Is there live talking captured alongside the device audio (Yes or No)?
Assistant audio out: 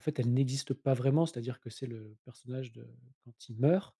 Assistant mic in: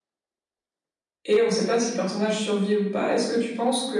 Yes